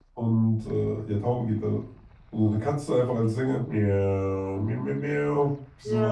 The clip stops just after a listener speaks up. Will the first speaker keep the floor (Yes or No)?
No